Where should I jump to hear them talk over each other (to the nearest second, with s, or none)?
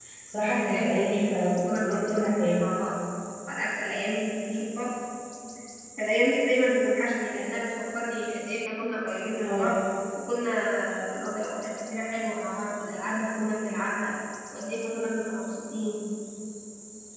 1 s